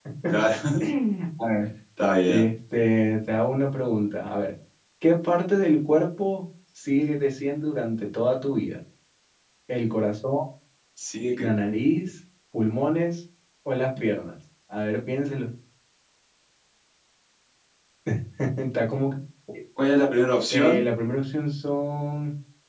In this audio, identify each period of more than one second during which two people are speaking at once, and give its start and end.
none

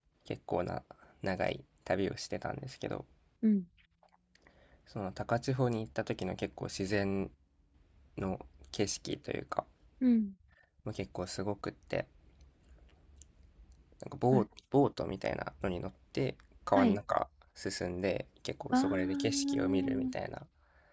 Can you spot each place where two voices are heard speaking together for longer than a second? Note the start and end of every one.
18.7-20.1

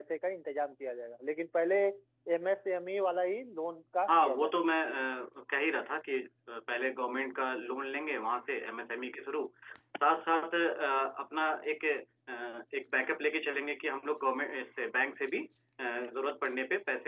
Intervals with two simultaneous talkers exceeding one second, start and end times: none

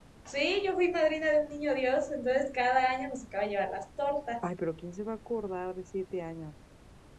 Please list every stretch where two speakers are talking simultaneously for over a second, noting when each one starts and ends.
none

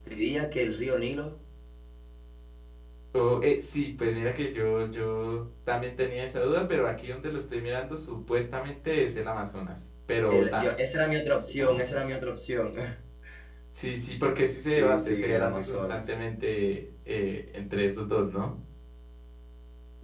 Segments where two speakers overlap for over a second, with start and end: 14.6-16.1

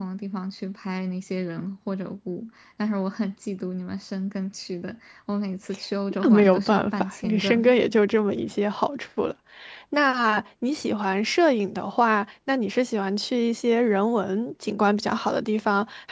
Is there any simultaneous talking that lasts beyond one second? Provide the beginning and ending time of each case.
6.2-7.7

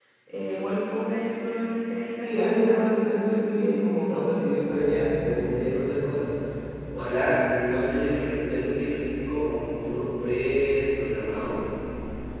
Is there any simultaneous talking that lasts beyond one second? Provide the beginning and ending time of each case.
2.2-4.4

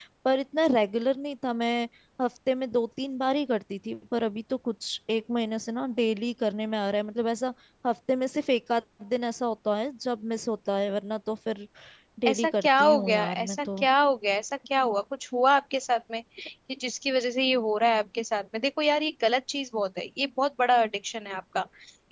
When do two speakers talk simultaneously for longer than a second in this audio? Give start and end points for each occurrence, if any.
12.3-13.8

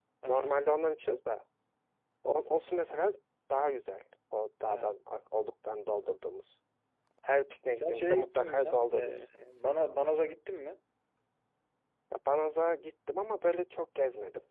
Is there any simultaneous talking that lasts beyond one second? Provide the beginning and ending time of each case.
7.7-9.3

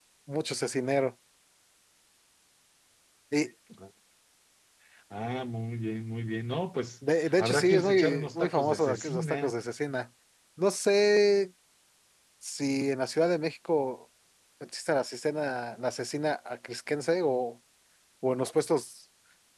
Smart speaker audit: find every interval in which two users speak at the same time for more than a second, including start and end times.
7.2-9.6

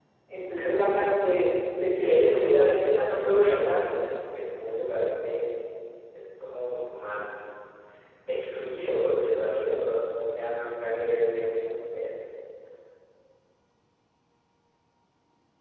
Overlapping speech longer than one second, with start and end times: 2.0-3.8

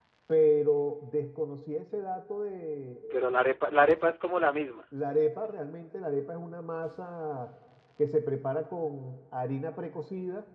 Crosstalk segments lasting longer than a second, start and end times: none

